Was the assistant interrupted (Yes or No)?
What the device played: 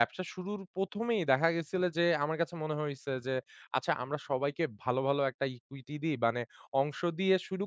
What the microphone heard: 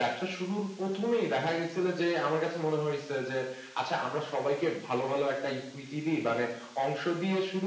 No